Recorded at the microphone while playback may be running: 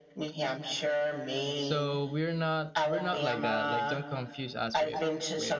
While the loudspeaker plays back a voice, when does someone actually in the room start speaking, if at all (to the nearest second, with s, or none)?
2 s